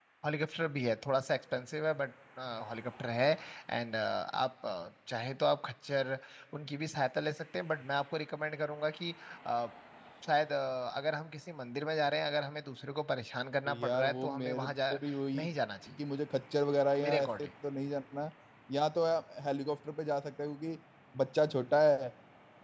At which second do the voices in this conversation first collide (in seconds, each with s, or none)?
13.7 s